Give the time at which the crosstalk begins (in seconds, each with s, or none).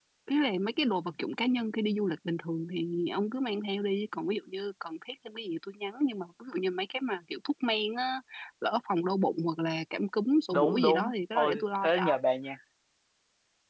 10.5 s